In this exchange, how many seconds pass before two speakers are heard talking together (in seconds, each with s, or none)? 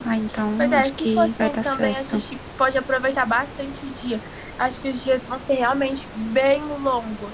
0.6 s